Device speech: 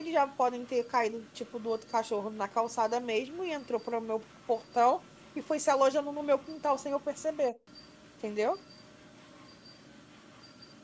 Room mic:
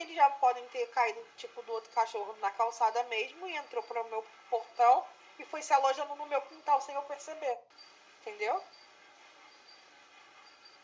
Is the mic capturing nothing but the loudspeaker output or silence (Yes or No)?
Yes